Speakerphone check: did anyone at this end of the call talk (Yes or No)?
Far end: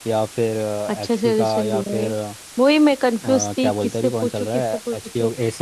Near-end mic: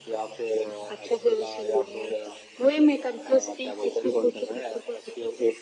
No